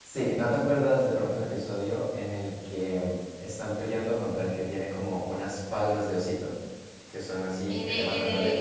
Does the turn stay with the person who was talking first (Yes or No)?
No